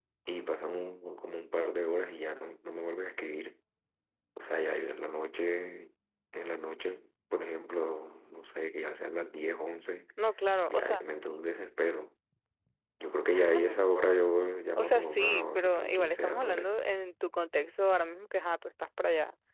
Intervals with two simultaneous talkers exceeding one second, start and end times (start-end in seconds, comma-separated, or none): 14.8-16.7